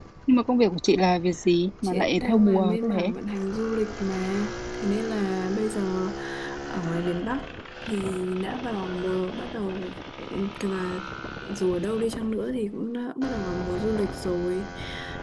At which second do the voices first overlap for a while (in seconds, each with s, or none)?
1.8 s